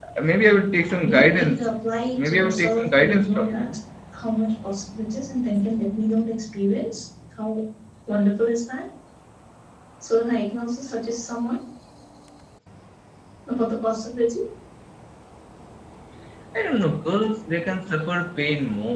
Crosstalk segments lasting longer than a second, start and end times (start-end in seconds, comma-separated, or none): 2.2-3.8